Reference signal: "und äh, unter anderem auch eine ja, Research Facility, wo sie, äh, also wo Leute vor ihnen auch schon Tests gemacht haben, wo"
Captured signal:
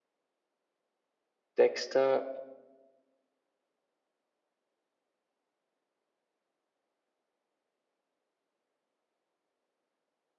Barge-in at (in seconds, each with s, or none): 1.6 s